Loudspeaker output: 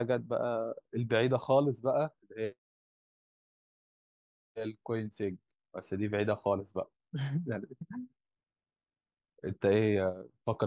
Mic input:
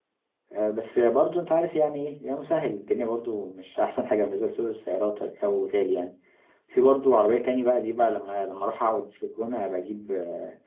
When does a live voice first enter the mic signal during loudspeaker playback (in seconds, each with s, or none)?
0.5 s